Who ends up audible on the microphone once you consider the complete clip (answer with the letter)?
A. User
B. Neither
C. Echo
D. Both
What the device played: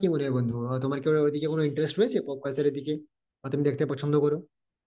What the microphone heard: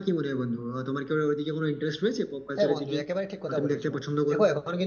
D